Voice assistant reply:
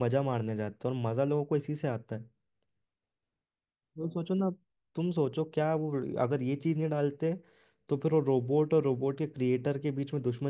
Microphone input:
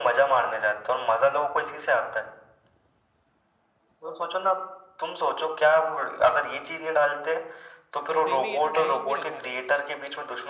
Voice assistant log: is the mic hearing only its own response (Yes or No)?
No